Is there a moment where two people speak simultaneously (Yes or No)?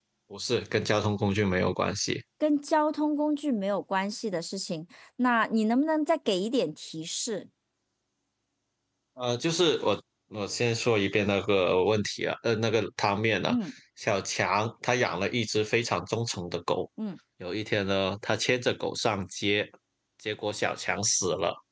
No